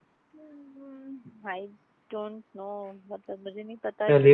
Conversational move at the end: taking over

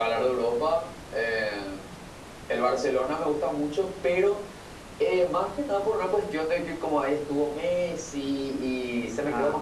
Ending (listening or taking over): listening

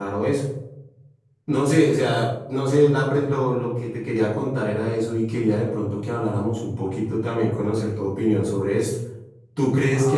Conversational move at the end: listening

